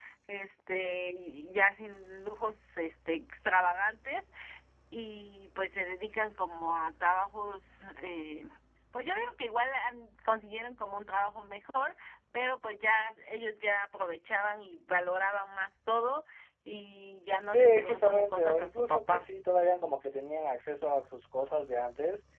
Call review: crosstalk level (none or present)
present